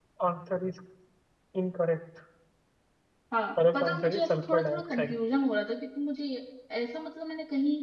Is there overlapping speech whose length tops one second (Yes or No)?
Yes